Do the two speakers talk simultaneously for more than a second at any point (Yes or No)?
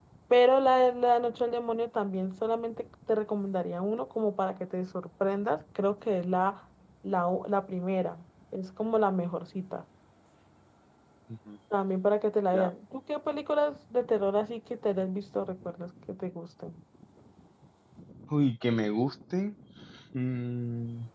No